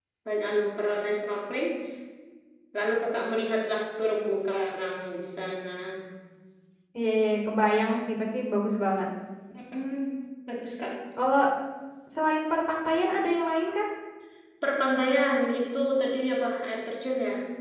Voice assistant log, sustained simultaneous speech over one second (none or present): none